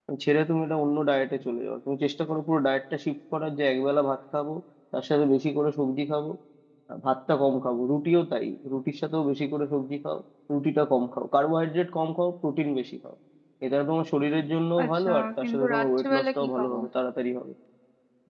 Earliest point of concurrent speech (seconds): 14.8 s

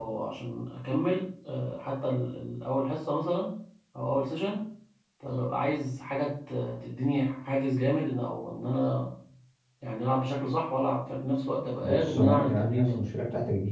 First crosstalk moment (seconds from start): 11.8 s

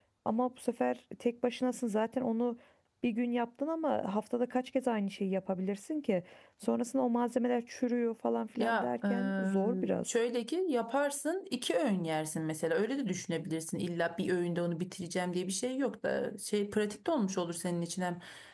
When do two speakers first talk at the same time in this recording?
8.6 s

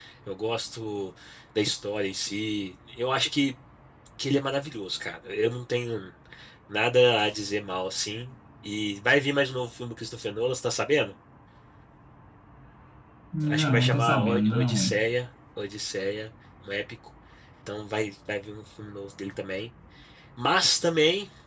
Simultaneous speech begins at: 13.4 s

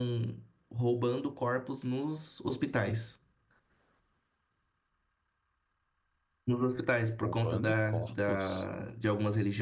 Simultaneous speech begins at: 7.2 s

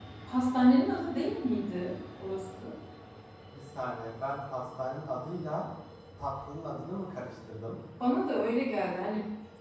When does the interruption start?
none

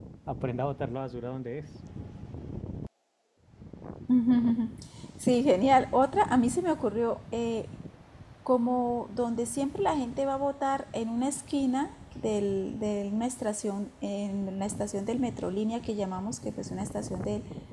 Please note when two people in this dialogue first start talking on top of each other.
none

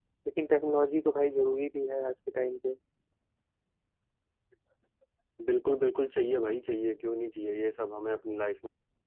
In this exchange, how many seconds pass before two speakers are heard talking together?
none

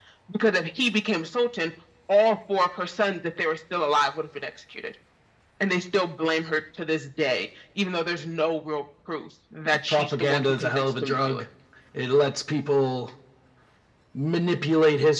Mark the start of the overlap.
9.9 s

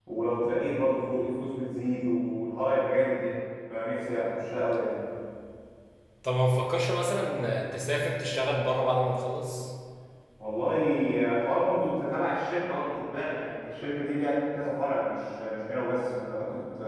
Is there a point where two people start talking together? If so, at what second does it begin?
none

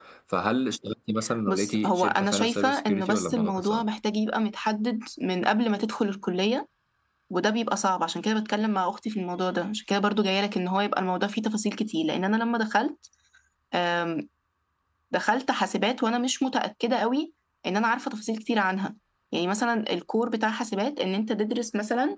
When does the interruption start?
1.5 s

